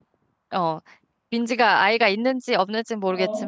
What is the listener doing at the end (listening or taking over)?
listening